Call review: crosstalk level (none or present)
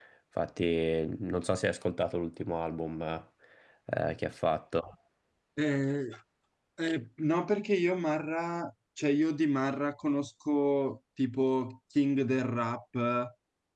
none